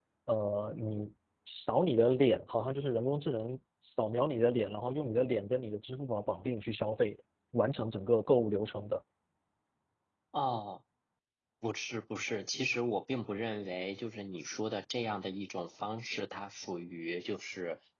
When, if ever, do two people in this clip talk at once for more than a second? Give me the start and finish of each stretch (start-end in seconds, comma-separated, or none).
none